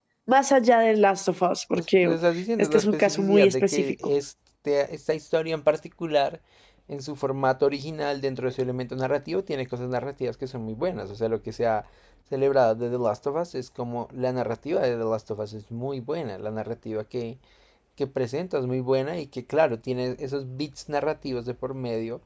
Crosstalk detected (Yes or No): Yes